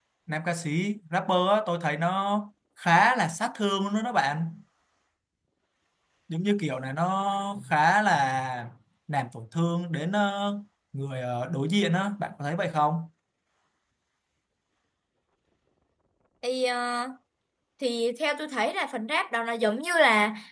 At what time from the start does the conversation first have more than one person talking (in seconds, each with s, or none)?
none